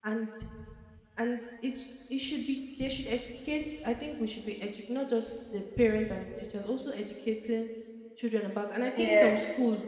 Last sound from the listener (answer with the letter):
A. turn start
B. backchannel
B